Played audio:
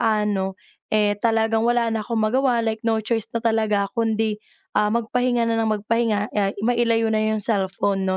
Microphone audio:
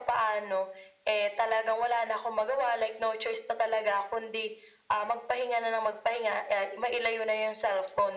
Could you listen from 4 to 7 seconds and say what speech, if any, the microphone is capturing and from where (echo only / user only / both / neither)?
echo only